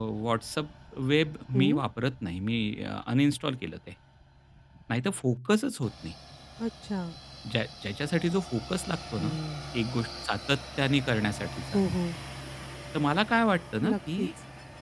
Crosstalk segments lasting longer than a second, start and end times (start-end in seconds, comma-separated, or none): none